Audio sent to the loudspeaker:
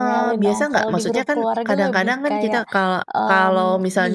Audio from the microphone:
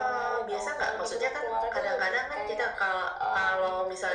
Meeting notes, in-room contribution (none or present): none